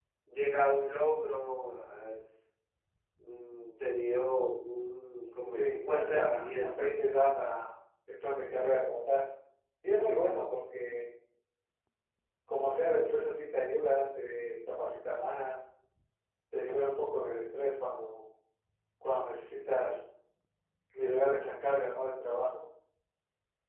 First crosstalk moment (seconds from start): 5.5 s

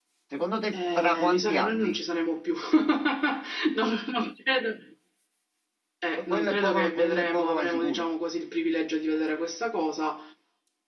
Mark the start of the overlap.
0.7 s

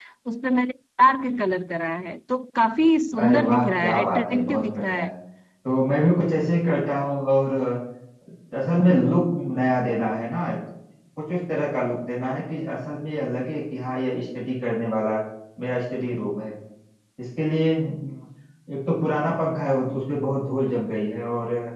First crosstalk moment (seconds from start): 3.1 s

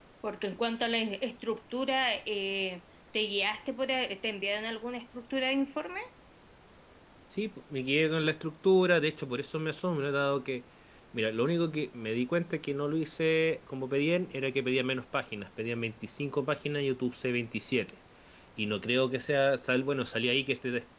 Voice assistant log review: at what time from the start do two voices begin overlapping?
none

